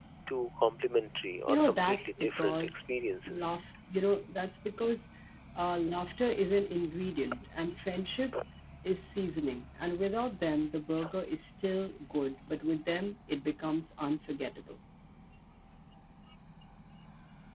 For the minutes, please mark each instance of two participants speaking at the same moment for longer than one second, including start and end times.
1.5-2.8

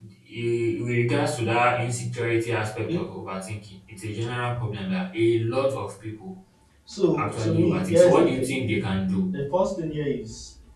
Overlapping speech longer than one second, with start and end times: 7.2-8.4

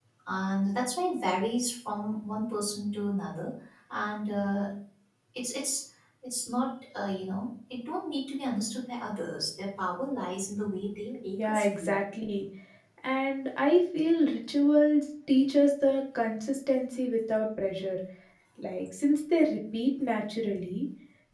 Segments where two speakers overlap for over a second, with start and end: none

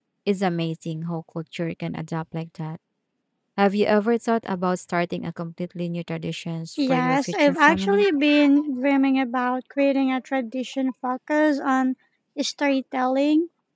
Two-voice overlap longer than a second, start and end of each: 6.8-8.0

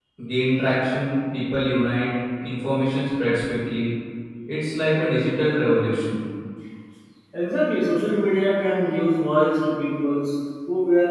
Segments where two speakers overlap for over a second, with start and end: none

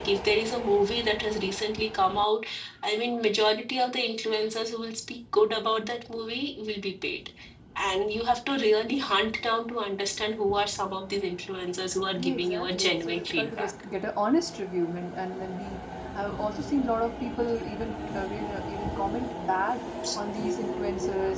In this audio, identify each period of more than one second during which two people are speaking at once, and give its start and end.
12.2-13.7

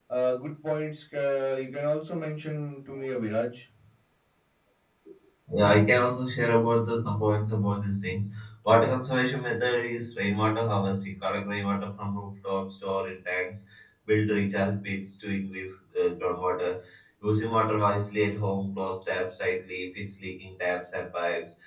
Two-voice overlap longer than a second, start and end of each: none

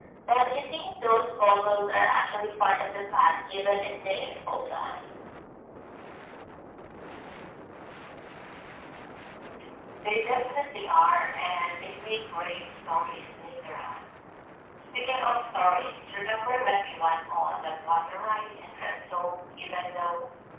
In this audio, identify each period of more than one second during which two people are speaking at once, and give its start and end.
none

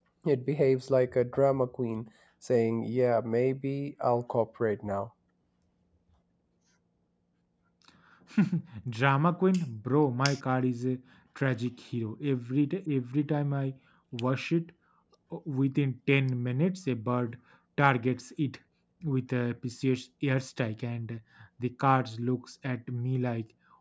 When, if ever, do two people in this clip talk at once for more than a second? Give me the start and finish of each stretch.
none

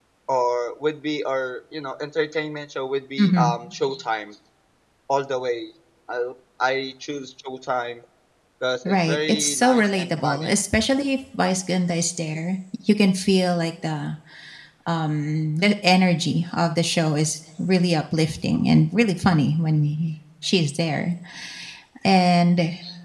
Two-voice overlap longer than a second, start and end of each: 8.8-10.5

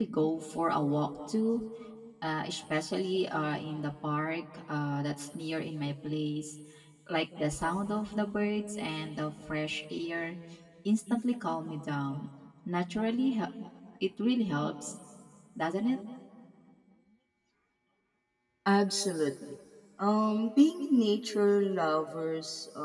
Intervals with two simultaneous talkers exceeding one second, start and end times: none

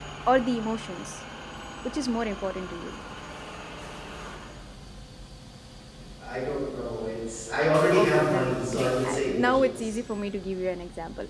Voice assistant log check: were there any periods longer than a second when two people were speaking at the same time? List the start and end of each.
7.9-9.9

